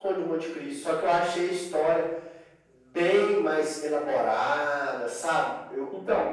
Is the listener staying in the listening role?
No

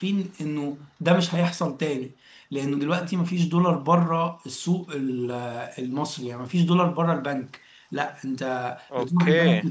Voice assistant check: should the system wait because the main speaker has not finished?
Yes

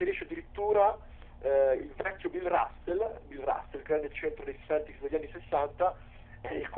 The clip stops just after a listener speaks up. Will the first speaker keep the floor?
Yes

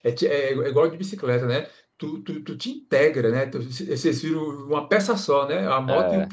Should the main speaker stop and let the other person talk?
No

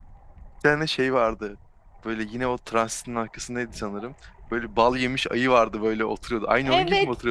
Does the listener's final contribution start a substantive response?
Yes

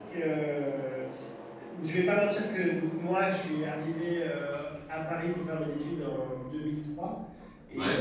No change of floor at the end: Yes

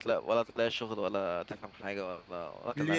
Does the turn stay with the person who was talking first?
Yes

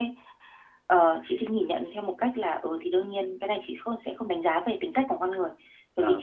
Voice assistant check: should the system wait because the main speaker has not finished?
Yes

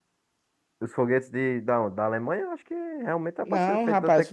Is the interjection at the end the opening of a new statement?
Yes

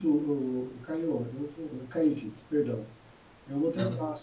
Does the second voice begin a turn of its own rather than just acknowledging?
No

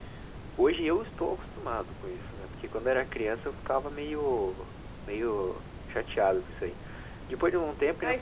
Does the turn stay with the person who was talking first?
No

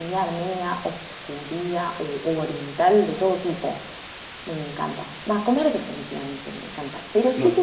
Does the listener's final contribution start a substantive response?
No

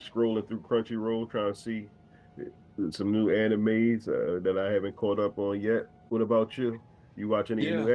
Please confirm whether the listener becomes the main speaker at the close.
Yes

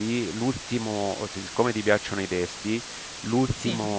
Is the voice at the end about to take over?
No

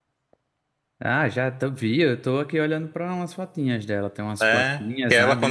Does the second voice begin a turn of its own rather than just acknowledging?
Yes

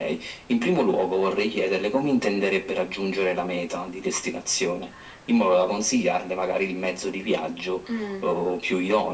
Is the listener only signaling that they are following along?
Yes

